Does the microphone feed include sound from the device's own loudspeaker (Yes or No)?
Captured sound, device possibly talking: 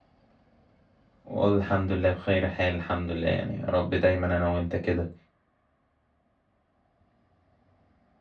No